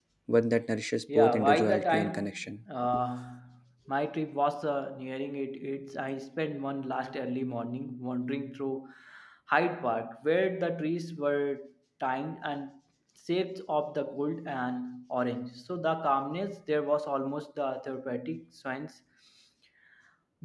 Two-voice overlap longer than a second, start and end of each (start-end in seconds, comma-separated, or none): 1.1-2.4